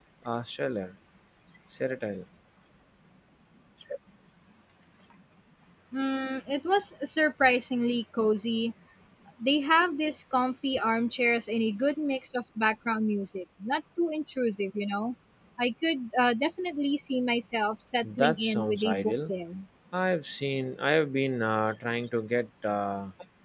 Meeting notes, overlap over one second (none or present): present